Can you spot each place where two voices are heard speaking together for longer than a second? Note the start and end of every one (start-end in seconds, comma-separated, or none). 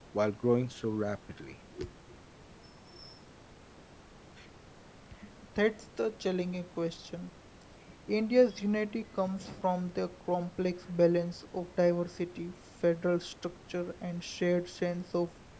none